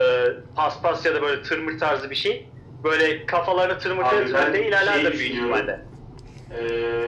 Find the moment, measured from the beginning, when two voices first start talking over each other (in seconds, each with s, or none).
4.0 s